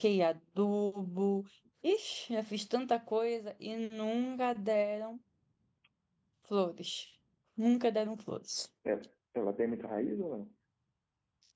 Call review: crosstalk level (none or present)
none